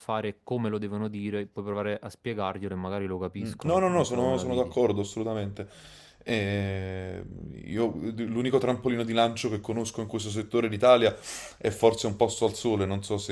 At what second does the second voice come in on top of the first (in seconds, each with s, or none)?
3.4 s